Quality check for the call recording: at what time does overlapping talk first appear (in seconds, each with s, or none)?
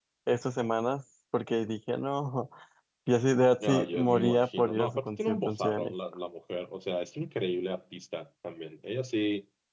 3.6 s